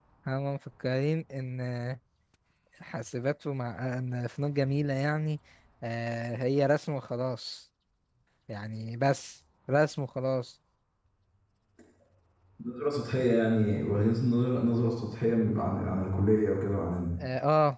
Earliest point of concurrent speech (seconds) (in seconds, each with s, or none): none